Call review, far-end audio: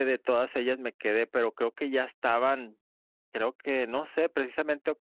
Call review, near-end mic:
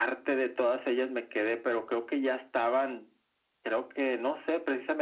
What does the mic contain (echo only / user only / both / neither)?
echo only